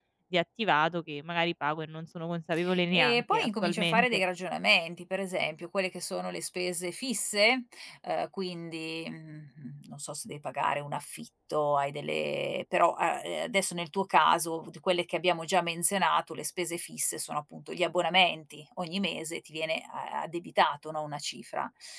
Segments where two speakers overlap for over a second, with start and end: 2.9-4.2

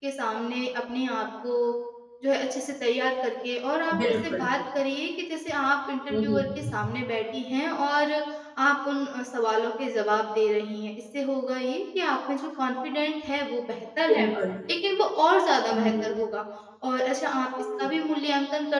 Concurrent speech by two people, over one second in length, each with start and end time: none

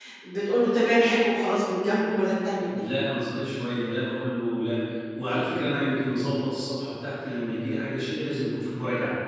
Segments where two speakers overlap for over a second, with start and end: none

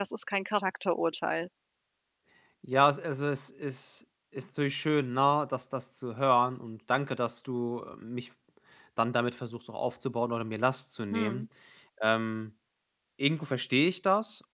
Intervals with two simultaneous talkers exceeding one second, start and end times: none

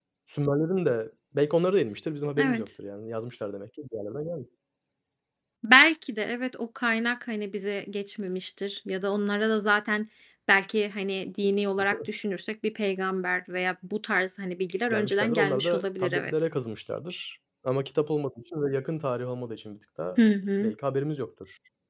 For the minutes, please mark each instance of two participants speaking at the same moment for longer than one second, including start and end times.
14.9-16.3

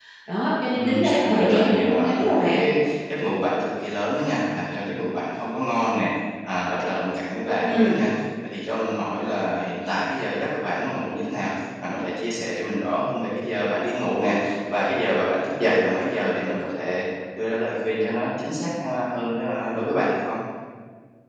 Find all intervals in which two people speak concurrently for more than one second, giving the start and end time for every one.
0.7-2.6

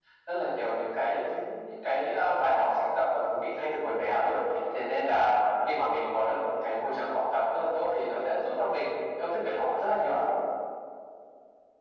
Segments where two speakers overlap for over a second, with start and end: none

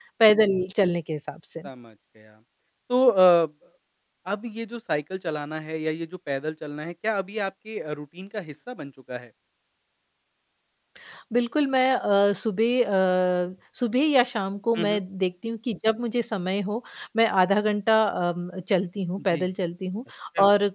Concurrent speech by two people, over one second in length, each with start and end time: none

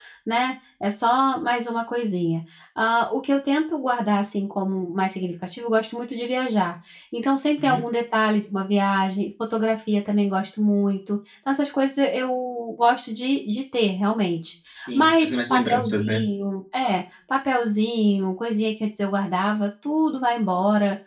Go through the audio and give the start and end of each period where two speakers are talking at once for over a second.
14.9-16.2

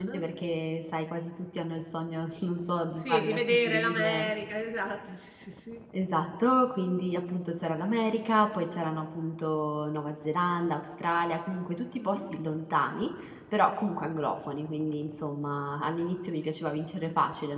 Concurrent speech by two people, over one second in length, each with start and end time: 3.0-4.3

